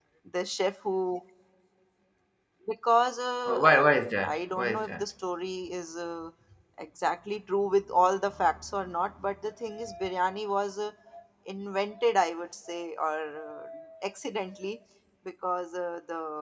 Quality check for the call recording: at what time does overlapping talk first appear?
3 s

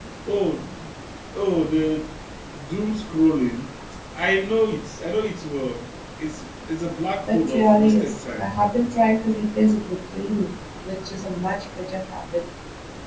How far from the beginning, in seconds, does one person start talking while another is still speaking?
7 s

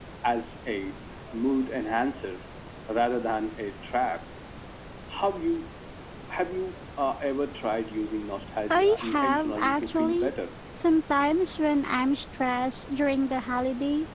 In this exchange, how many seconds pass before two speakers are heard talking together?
9 s

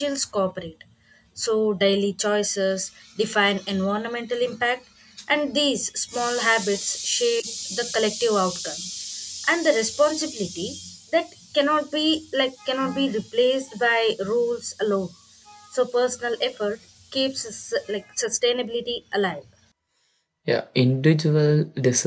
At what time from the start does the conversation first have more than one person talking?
none

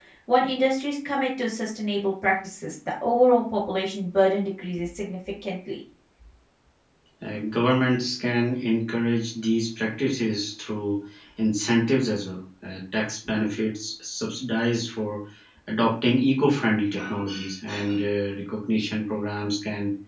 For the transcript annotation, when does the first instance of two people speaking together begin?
none

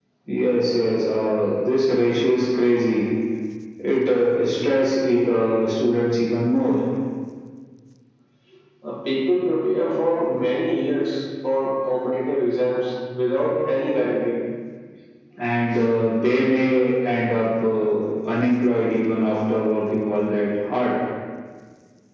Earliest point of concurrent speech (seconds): none

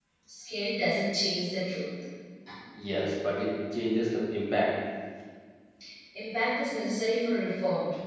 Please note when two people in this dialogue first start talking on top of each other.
none

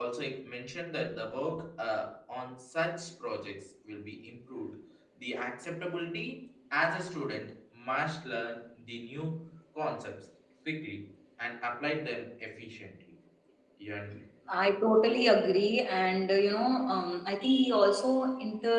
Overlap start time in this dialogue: none

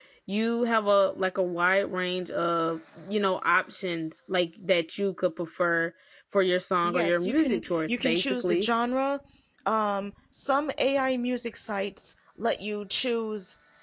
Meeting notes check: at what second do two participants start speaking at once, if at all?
7 s

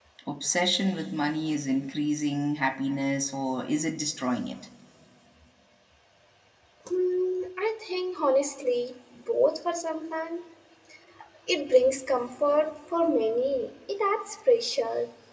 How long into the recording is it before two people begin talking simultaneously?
none

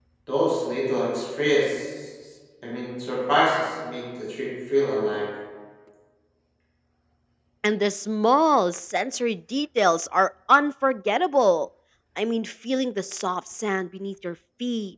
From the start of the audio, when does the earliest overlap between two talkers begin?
none

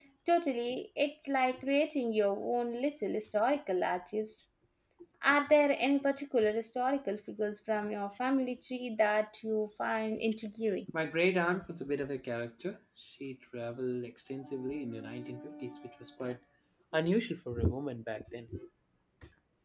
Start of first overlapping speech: none

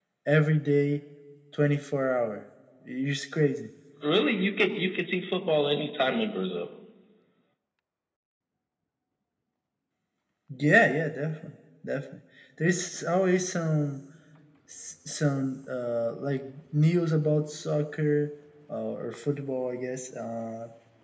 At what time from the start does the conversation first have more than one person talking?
none

